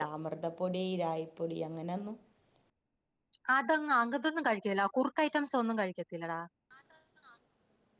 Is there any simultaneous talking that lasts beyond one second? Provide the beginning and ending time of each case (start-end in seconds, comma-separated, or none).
none